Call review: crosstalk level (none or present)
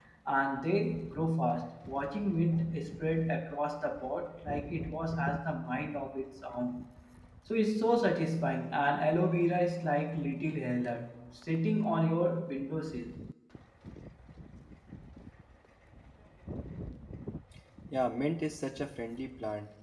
none